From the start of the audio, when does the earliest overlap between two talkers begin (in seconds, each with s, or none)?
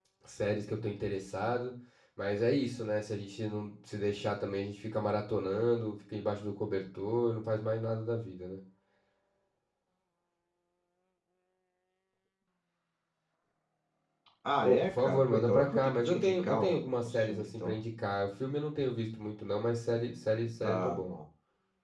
14.6 s